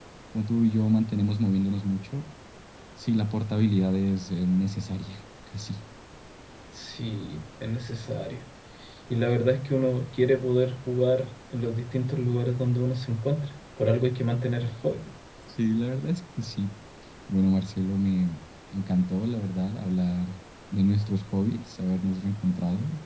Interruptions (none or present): none